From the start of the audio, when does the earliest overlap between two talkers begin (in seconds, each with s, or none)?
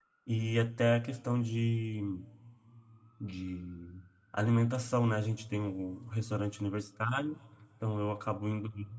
none